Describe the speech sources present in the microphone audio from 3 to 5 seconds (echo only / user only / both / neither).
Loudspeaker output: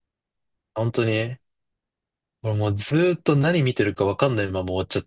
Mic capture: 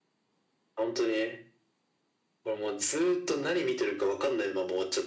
echo only